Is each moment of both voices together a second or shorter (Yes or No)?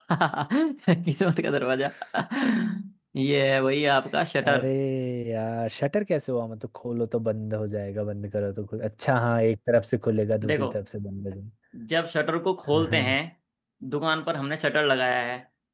Yes